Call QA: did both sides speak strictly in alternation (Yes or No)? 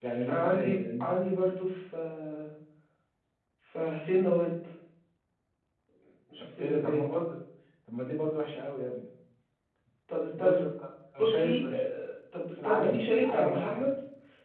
No